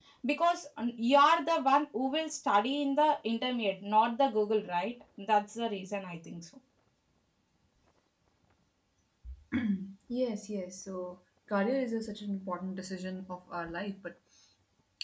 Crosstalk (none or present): none